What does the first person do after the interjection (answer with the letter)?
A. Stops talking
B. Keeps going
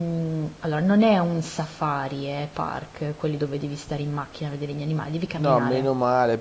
A